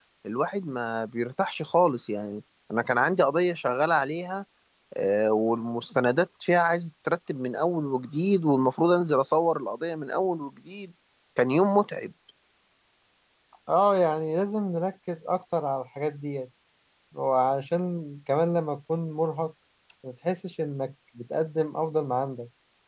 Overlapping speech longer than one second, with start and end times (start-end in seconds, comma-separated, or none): none